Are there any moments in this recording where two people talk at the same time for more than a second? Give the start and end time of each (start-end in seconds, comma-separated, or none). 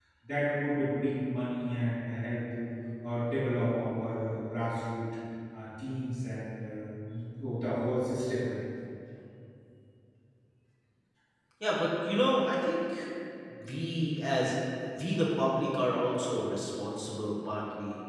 none